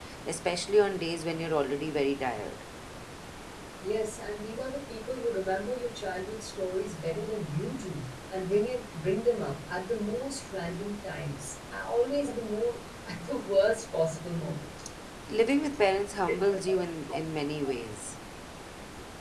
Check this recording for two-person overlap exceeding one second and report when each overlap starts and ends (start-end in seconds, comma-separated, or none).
none